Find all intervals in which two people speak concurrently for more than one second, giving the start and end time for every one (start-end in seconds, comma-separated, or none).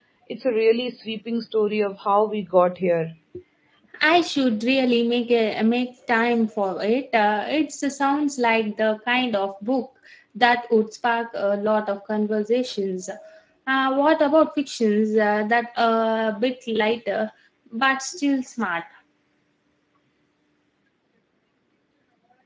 none